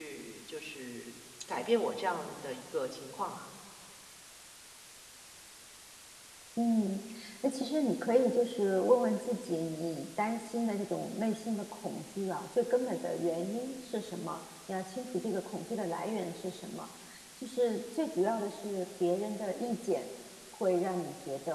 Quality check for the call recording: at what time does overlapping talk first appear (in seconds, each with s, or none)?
none